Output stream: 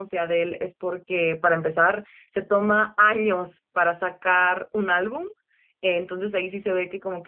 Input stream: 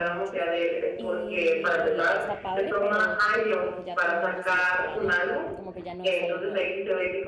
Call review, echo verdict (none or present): present